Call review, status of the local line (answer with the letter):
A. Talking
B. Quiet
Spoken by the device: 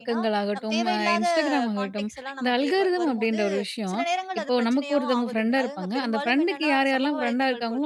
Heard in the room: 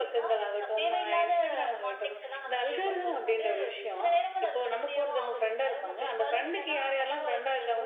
B